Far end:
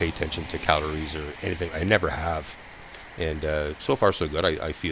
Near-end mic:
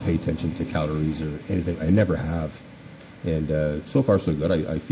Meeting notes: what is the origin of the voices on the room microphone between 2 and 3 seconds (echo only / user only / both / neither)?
echo only